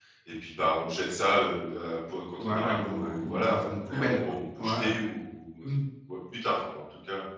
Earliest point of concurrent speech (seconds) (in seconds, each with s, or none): 2.4 s